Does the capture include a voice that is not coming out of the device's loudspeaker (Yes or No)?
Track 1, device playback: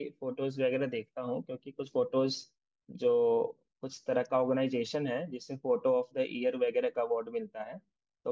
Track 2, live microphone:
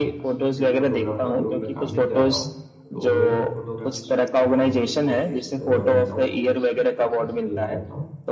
Yes